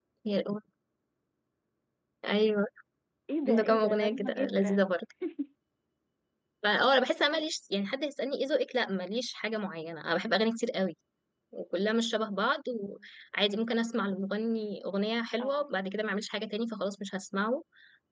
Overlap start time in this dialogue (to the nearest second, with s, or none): 3 s